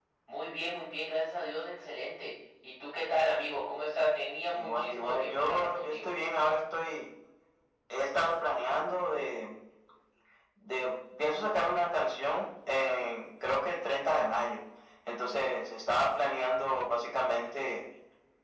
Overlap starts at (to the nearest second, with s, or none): 5 s